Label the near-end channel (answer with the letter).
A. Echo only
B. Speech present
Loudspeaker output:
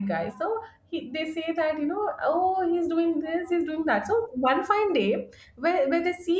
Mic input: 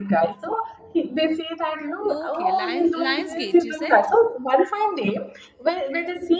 B